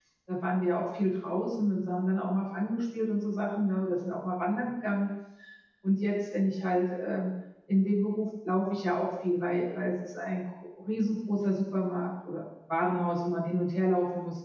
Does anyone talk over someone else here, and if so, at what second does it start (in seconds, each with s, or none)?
none